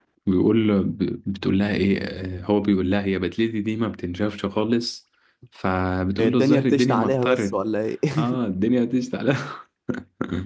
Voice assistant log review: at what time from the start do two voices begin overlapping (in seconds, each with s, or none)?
6.2 s